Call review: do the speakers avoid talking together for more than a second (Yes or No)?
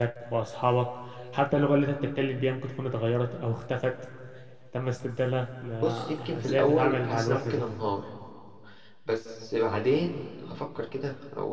No